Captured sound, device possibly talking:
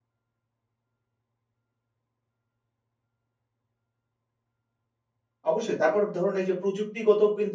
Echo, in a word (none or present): none